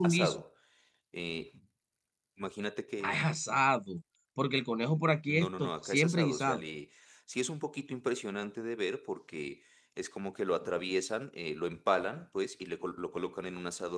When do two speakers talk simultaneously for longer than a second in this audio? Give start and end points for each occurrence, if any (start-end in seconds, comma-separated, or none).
5.3-6.6